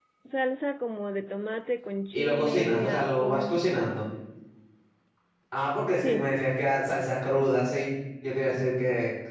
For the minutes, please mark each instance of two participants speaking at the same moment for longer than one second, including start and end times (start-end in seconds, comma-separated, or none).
2.1-3.6